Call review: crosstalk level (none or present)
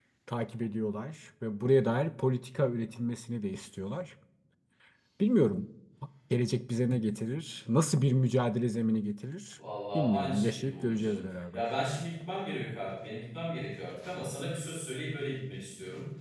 present